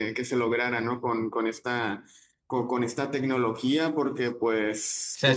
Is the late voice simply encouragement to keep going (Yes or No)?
No